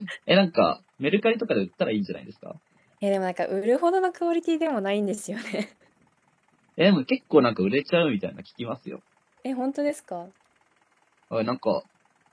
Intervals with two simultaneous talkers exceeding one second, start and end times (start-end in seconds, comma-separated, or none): none